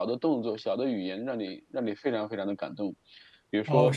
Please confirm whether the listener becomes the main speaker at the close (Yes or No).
Yes